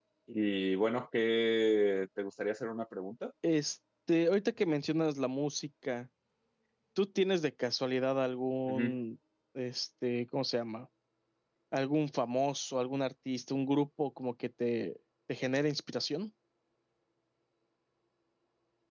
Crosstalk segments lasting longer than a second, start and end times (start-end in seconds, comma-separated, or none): none